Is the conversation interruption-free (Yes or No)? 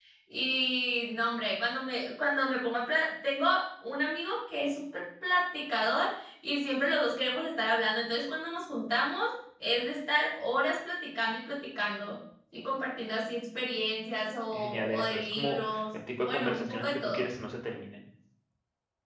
No